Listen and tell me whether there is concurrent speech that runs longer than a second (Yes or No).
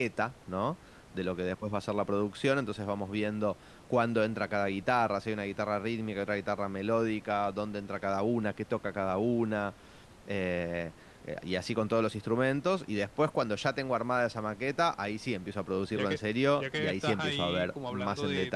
Yes